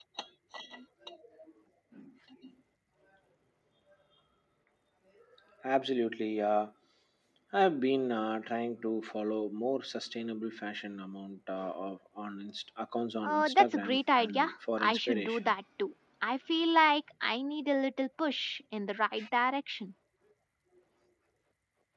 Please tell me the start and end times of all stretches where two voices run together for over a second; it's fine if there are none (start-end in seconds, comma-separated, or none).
13.2-15.5